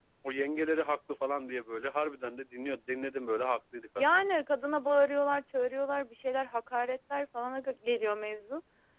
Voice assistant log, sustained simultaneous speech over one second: none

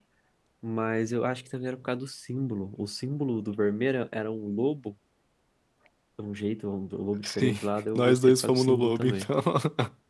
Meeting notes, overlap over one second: present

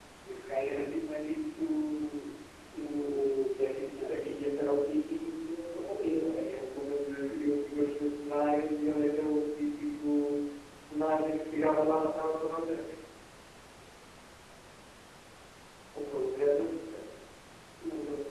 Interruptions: none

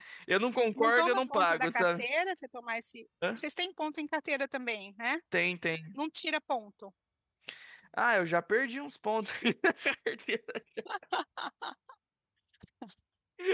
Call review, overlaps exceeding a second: present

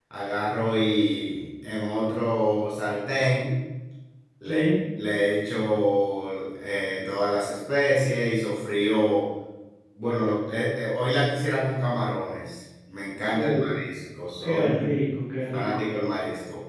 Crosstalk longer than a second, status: none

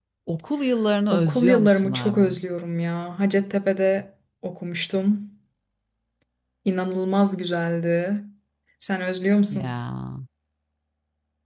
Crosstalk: present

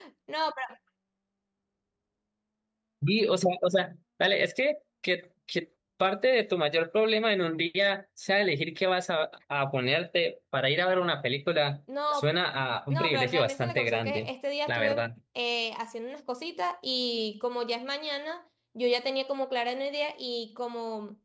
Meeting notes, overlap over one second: present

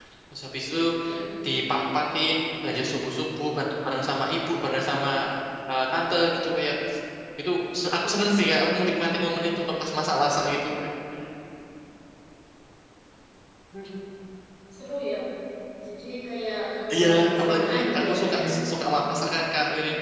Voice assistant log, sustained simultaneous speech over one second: present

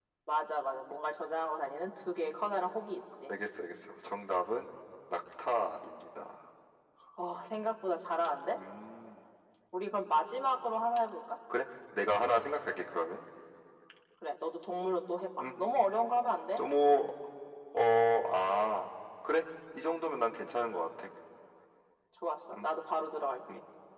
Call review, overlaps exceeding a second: none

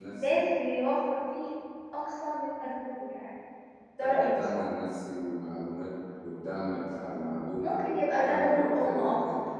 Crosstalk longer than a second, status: present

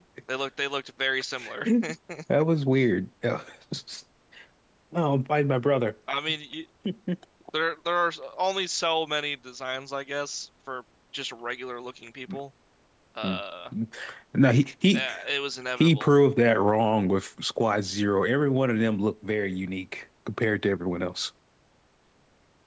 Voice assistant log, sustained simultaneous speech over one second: none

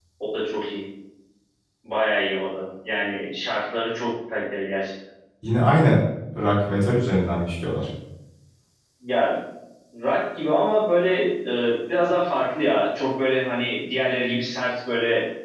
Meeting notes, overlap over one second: none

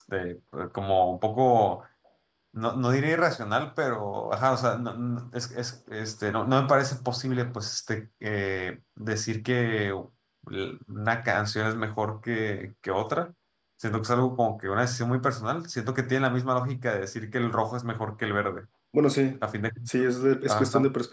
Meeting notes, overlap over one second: none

